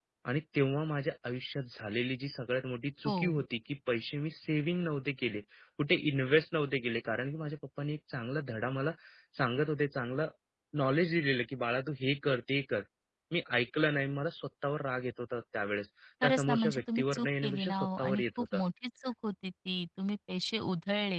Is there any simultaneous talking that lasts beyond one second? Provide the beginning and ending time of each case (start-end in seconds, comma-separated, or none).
16.2-18.6